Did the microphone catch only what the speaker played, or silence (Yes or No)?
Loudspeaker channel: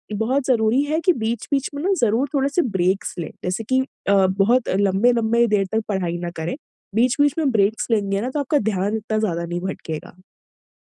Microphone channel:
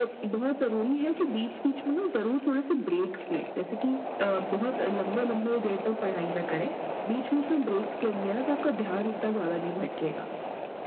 Yes